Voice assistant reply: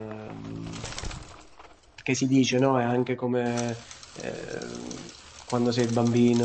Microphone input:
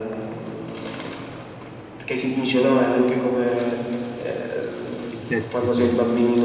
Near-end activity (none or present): present